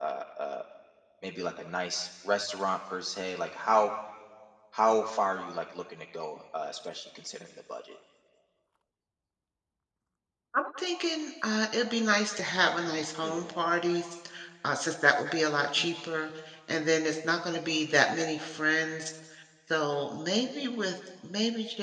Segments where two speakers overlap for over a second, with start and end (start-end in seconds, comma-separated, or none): none